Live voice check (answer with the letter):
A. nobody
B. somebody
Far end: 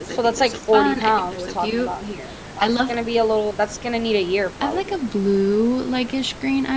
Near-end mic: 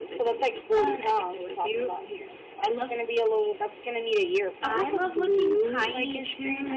B